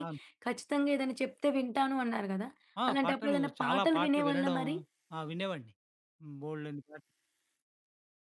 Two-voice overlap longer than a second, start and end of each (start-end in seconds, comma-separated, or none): 2.9-4.6